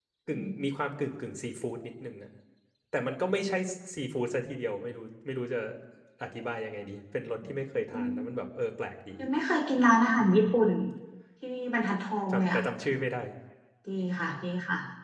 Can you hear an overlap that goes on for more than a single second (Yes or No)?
No